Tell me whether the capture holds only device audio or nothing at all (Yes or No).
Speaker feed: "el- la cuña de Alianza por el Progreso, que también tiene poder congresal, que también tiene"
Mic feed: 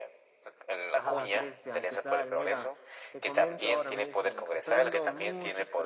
No